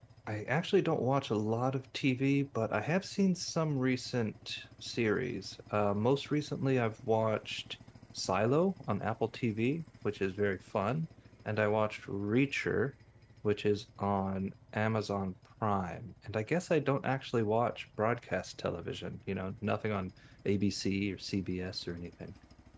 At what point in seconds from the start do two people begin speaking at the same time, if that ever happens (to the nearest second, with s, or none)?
none